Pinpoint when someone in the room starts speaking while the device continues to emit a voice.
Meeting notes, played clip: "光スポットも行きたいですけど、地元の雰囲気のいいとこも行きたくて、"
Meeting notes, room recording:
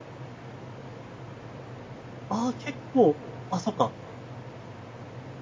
2.3 s

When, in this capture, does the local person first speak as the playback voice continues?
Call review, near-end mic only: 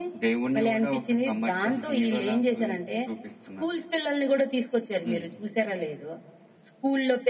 none

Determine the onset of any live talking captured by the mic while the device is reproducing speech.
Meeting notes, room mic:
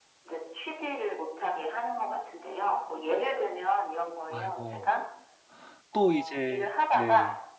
4.3 s

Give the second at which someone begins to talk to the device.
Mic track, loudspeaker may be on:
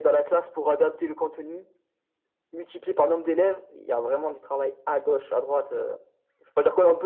none

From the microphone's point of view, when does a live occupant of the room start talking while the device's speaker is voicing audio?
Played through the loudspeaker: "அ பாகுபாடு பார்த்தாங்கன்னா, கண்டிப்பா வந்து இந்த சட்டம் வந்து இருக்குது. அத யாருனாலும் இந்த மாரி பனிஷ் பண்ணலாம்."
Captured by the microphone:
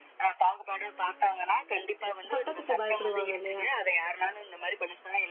2.3 s

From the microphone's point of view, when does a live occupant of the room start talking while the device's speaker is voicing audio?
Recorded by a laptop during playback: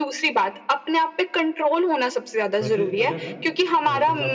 2.6 s

